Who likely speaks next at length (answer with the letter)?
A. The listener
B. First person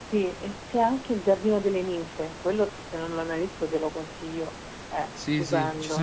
A